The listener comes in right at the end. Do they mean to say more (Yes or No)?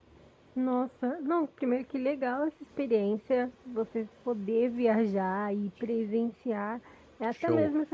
No